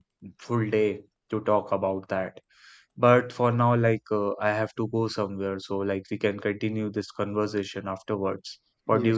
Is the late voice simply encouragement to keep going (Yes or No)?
No